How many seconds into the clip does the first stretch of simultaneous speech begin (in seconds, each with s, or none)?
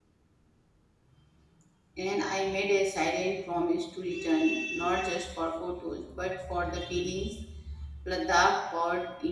none